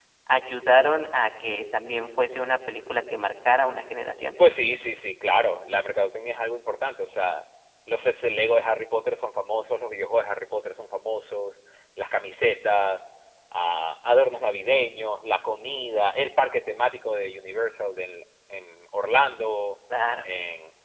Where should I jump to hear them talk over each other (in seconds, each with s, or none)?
none